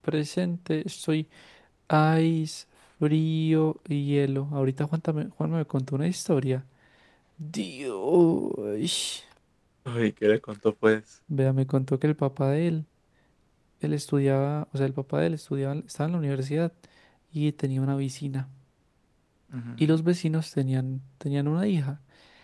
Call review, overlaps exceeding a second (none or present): none